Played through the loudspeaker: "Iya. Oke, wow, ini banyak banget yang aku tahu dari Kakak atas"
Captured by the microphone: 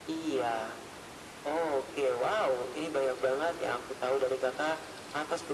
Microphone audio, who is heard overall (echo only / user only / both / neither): echo only